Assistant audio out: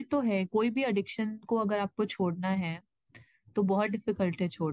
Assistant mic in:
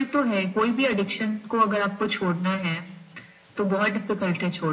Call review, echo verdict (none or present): present